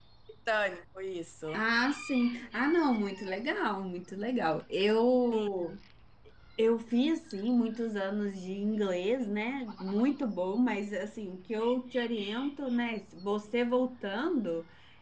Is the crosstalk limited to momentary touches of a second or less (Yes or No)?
Yes